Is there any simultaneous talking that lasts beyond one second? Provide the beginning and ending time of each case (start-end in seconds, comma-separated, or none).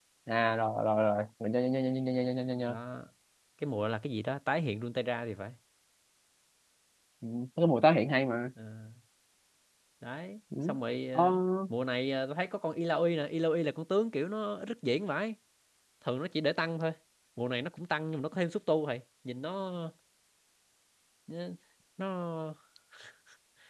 none